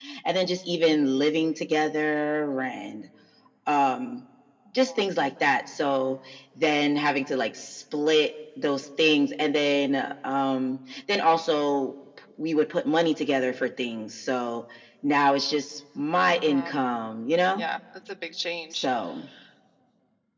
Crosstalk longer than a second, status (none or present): none